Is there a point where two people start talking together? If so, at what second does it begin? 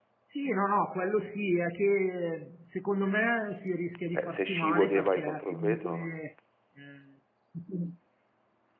4 s

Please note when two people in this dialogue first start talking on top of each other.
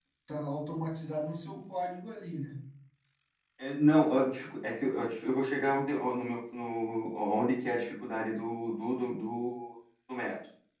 none

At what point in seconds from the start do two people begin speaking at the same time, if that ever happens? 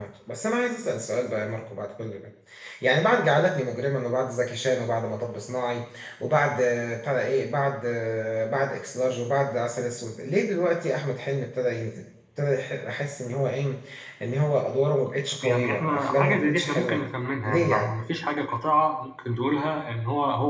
15 s

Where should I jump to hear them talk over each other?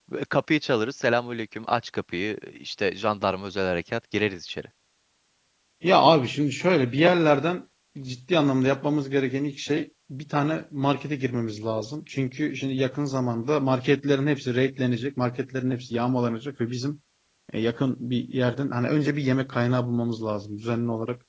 none

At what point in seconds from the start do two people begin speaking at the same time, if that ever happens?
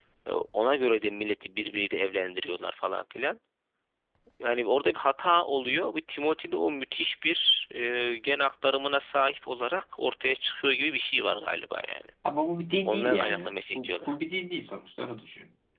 13 s

